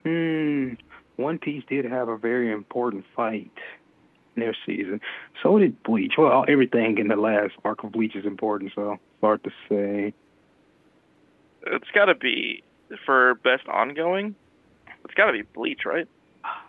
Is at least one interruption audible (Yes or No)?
No